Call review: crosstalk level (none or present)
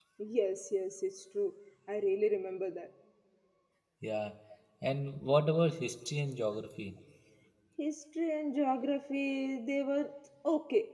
none